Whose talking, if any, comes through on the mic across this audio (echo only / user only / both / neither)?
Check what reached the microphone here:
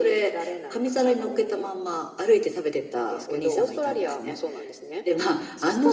echo only